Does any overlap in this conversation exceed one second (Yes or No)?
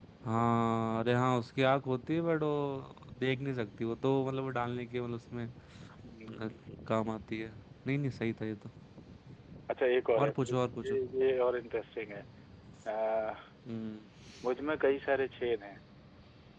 No